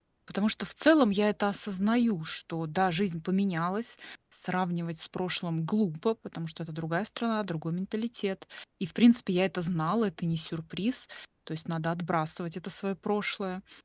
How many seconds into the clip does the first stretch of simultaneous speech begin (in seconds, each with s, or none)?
none